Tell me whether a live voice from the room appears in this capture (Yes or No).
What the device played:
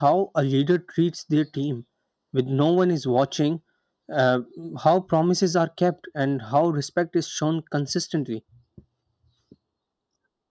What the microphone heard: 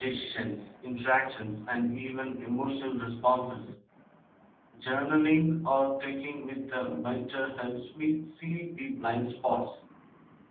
Yes